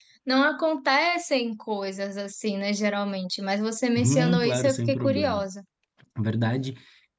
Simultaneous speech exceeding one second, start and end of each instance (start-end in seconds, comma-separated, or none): 4.0-5.5